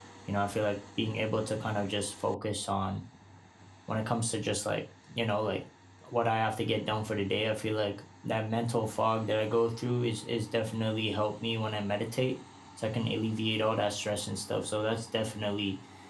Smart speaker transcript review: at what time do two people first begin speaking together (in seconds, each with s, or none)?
none